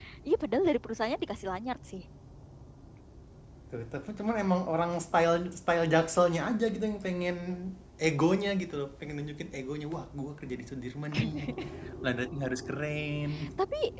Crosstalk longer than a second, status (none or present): none